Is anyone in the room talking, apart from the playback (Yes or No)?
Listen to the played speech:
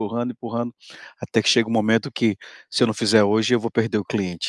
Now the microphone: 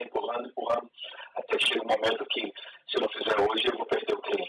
No